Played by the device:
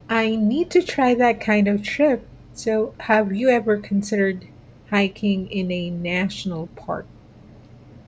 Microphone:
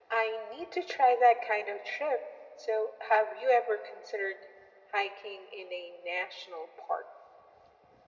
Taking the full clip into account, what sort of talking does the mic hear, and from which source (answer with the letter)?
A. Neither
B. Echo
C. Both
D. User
B